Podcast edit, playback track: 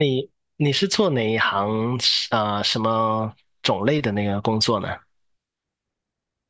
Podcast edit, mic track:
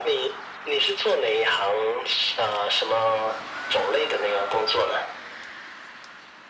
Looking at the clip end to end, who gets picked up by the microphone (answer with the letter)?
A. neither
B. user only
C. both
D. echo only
D